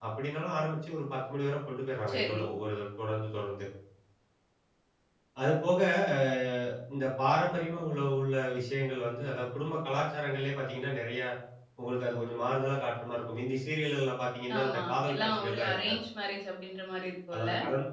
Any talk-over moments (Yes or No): Yes